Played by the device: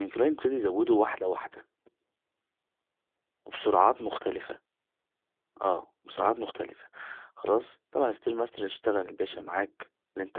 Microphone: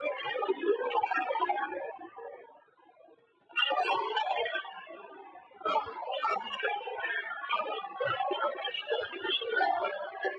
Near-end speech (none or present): none